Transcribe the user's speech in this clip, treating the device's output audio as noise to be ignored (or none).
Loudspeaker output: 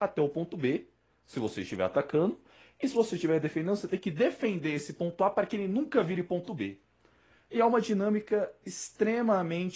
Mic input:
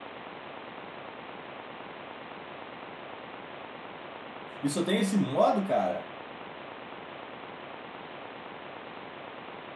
E só tem esse modo, cara?